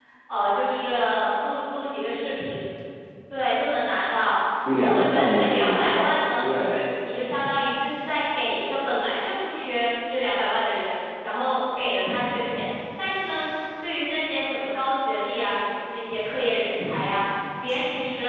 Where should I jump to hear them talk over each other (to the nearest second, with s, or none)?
5 s